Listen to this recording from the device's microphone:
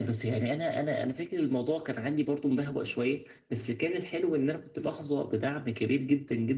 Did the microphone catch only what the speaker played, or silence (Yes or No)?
Yes